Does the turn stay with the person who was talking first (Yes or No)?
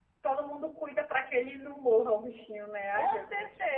No